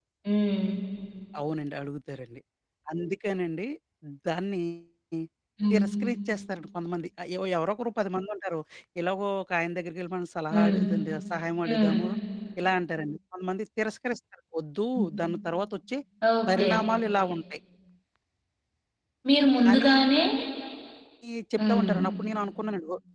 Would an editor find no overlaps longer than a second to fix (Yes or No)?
Yes